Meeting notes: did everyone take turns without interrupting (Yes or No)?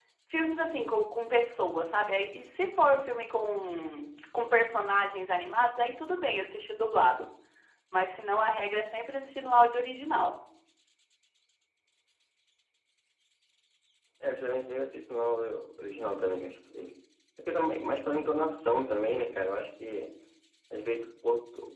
Yes